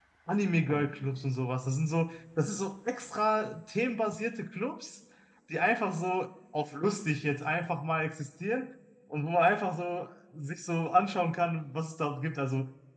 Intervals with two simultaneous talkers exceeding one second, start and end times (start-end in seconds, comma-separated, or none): none